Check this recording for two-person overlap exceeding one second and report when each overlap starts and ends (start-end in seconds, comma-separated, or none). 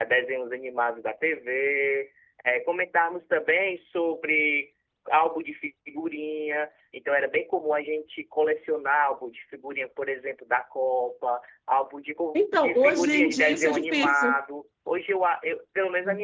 12.3-14.3